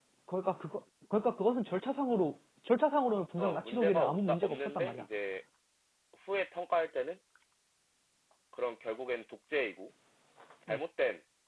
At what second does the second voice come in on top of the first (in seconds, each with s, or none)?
3.4 s